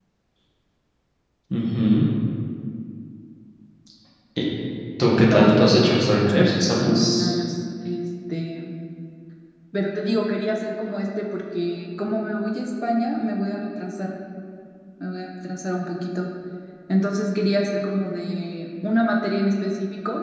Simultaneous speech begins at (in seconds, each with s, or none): 5.2 s